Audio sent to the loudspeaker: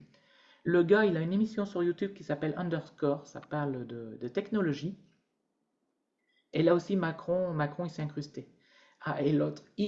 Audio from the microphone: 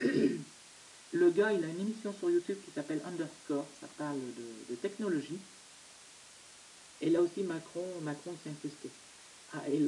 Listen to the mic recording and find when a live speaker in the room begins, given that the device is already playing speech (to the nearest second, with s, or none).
none